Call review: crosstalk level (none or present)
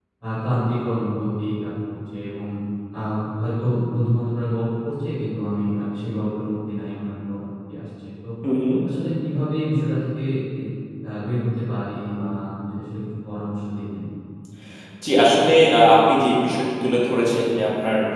none